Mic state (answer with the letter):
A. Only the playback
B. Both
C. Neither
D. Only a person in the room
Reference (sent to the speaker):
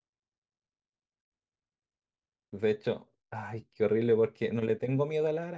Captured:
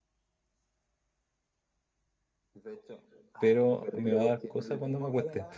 B